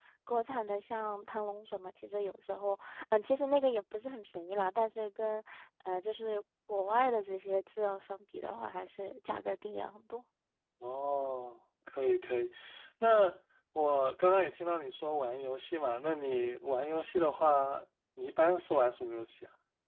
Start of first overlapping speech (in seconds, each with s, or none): none